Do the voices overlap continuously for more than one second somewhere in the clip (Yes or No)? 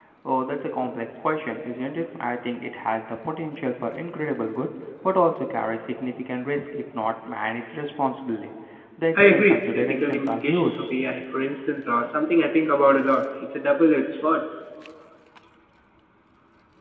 Yes